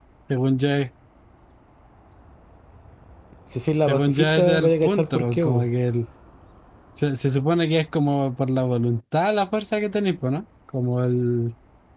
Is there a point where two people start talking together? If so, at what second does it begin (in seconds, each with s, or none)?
3.8 s